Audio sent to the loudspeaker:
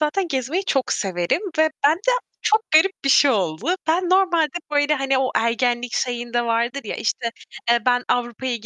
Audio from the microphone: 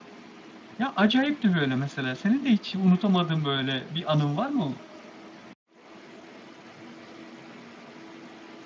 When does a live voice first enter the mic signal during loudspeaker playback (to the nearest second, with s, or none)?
1 s